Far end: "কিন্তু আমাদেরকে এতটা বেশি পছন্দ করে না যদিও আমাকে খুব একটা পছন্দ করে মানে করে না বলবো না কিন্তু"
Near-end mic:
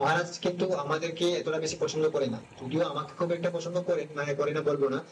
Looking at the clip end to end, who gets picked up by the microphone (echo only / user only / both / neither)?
echo only